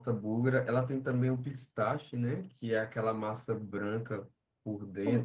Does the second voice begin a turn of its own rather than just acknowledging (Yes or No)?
Yes